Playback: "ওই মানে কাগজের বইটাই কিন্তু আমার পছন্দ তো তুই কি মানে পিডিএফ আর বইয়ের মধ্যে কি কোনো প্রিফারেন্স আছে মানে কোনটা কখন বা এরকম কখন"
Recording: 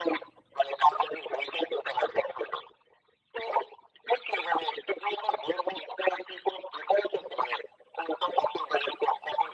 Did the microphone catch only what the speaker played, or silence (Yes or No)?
Yes